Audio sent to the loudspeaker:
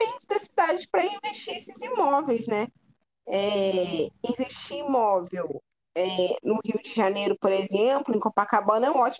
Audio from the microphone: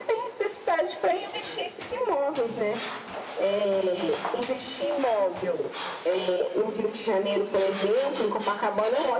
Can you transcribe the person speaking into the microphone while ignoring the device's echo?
none

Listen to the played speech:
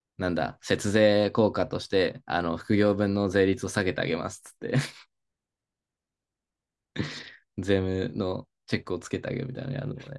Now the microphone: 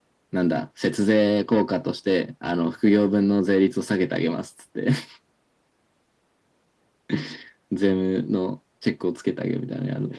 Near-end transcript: none

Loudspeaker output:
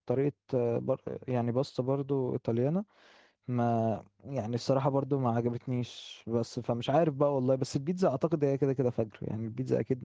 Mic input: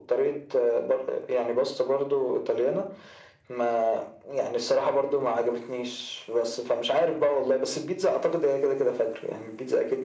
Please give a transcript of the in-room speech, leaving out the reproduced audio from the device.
none

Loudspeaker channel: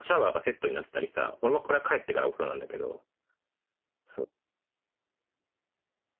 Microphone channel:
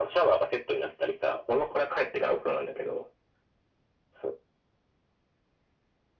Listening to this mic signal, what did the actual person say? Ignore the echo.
none

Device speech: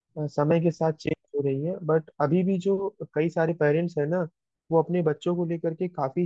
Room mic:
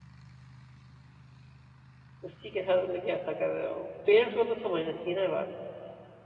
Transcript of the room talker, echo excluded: उसी के साथ मतलब कि ऐसा कर रहे हो पेरेंट्स को तो समझना चाहिए ना ये बात

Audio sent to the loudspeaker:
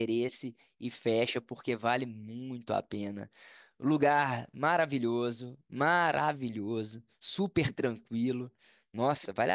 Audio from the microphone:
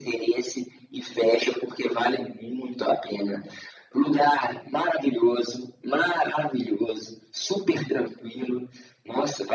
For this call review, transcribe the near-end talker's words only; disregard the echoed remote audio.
none

